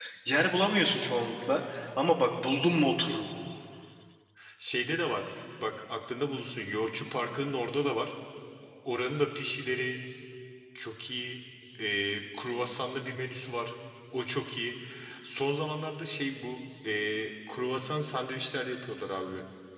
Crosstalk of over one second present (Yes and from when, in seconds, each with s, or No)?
No